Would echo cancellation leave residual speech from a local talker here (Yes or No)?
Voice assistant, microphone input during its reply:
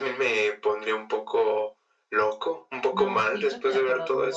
Yes